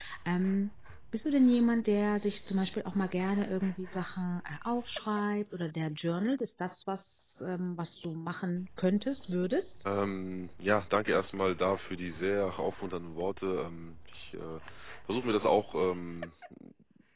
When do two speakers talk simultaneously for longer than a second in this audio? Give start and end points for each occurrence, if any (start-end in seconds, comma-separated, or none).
none